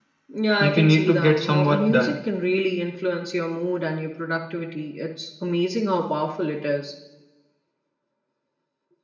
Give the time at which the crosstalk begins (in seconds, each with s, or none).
0.6 s